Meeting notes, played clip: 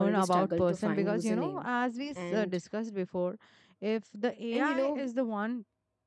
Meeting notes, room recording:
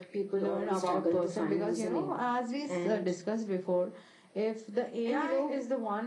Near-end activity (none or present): none